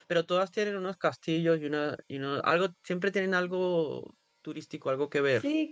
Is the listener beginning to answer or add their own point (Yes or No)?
Yes